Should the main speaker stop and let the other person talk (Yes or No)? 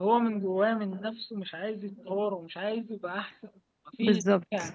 No